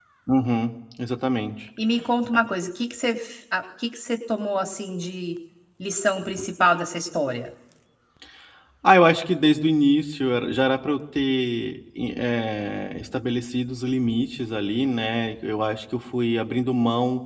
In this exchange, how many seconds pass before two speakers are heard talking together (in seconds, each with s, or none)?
none